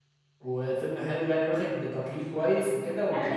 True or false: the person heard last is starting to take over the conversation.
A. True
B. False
A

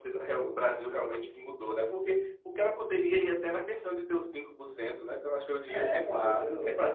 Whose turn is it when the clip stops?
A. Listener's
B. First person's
A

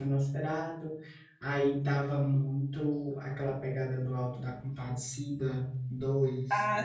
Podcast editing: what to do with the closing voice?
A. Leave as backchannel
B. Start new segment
B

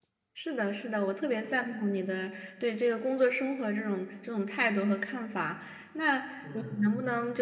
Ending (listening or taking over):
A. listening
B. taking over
A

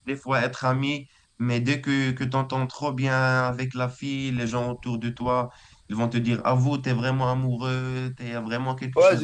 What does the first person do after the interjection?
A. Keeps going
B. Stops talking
B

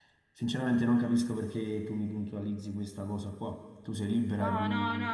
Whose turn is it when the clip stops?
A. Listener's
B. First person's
A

